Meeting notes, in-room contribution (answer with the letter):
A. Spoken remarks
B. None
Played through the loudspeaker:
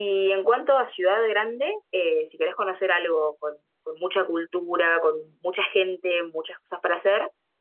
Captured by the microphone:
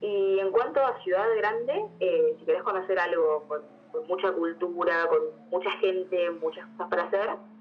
B